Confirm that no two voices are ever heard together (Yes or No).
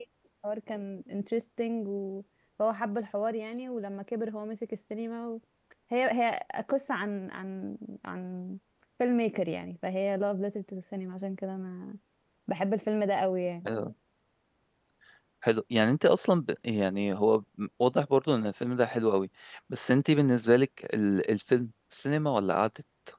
Yes